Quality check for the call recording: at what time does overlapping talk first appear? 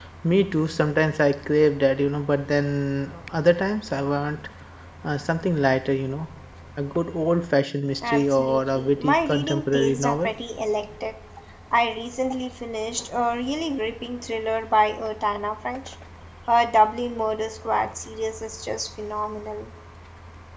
8.0 s

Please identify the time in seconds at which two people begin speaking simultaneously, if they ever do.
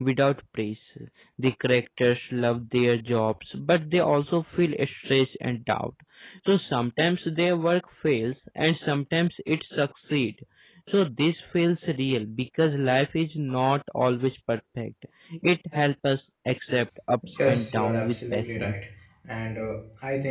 17.4 s

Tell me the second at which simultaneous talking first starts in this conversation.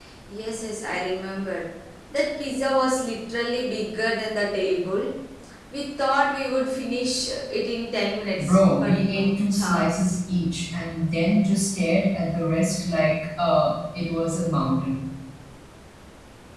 8.4 s

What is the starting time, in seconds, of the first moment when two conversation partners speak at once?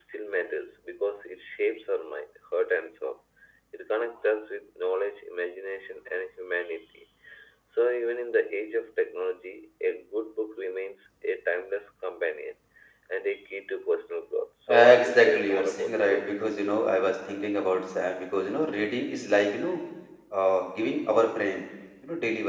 14.7 s

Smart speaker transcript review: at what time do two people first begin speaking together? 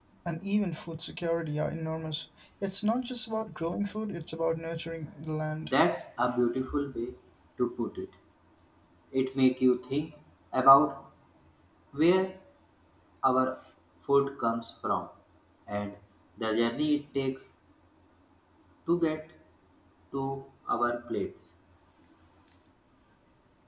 none

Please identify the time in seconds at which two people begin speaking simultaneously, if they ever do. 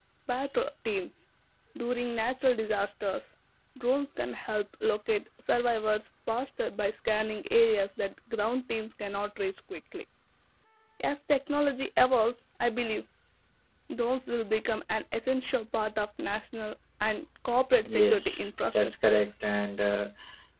17.8 s

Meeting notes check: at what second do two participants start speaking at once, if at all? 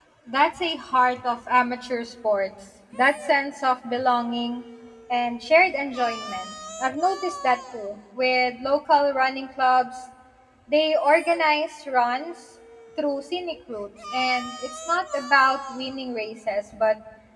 none

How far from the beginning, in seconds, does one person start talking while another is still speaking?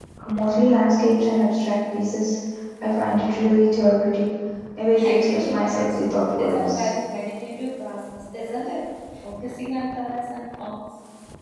5.0 s

